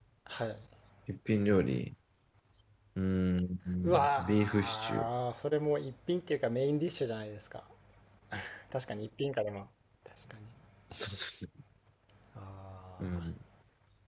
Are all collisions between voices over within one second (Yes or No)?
No